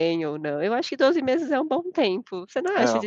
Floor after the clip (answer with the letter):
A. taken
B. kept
B